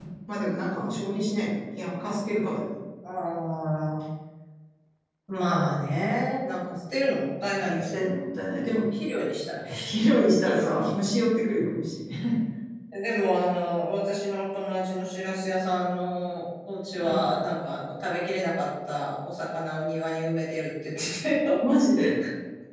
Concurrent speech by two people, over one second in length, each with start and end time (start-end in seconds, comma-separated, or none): none